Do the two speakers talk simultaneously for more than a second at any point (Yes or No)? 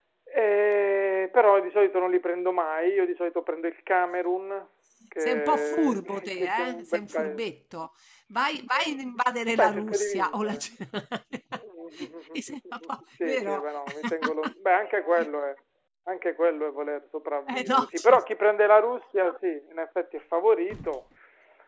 Yes